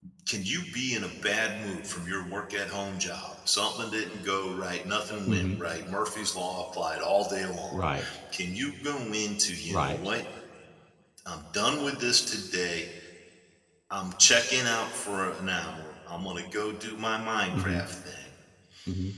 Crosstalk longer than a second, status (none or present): none